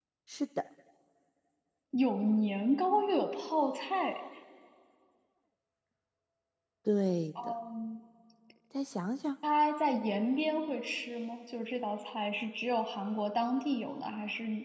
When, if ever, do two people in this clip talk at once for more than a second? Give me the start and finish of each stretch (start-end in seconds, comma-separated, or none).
none